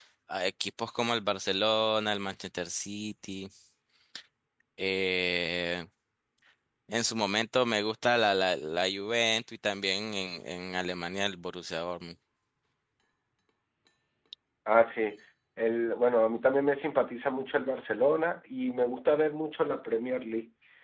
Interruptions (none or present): none